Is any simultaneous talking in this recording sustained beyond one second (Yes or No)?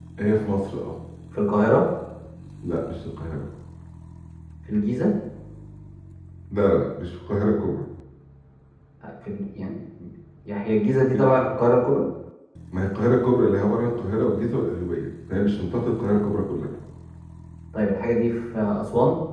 No